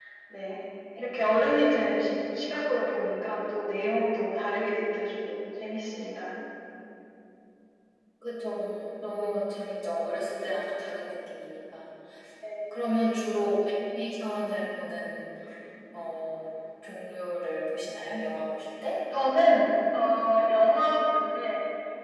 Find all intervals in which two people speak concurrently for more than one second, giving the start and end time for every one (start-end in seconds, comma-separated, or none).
none